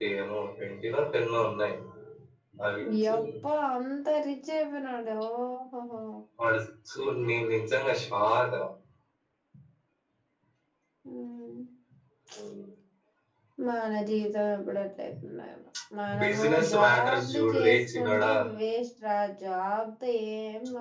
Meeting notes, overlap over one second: present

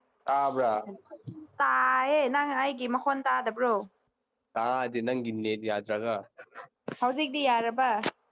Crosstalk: none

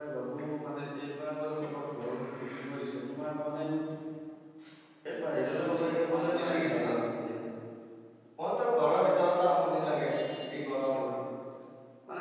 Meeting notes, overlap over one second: present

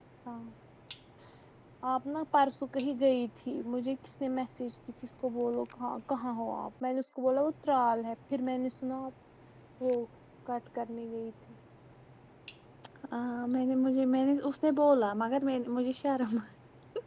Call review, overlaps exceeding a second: none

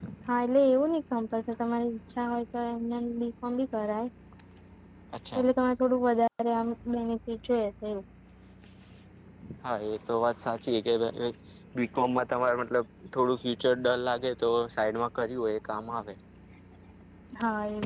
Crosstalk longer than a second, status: none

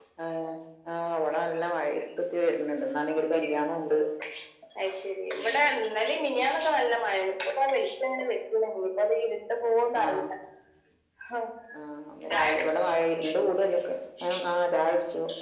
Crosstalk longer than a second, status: none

